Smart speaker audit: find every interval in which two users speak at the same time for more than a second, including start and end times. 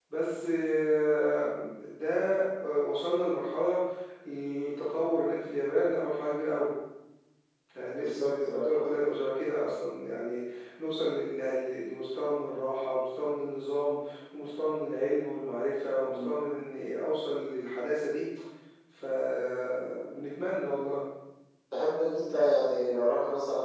7.9-9.2

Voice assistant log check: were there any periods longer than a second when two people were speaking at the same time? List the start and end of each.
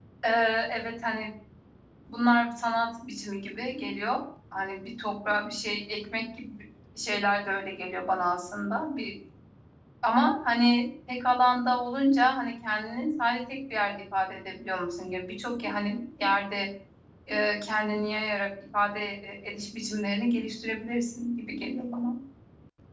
none

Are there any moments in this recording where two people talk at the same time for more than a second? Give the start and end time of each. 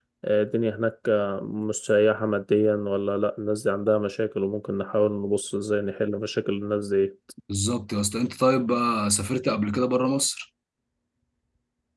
none

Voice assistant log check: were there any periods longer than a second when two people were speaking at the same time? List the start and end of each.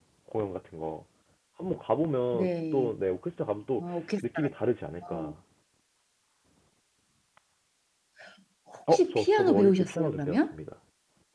8.9-10.5

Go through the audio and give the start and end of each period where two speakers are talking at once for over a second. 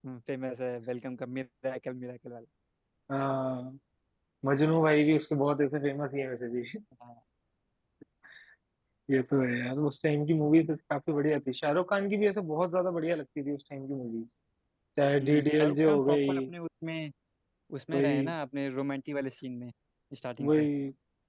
15.2-16.4

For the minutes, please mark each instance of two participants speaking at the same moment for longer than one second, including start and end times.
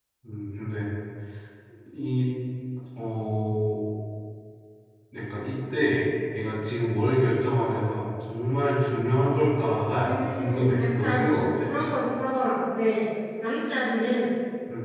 10.0-11.7

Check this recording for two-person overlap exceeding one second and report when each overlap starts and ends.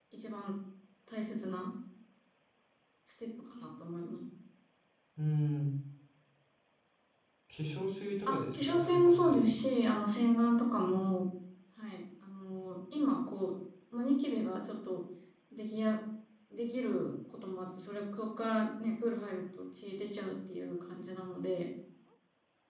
8.3-9.5

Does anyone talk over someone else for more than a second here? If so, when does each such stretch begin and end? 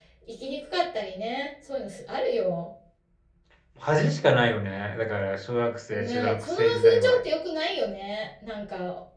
5.9-7.2

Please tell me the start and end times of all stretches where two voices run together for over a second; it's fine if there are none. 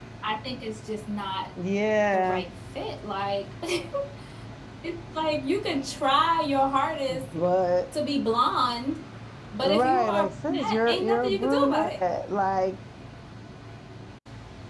9.6-11.9

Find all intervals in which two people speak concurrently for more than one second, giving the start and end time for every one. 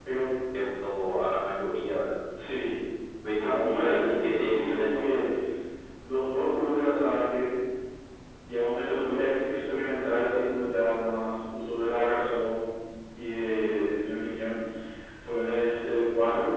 3.4-5.2

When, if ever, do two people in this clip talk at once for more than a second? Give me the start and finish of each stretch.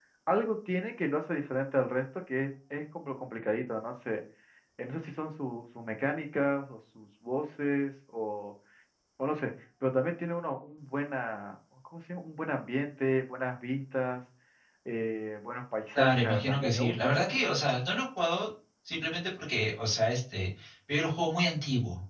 15.9-17.6

